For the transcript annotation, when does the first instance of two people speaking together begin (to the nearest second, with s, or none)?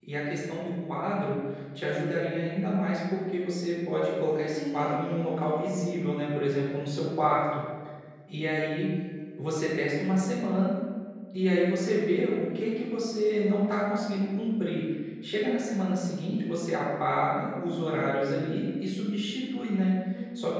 4 s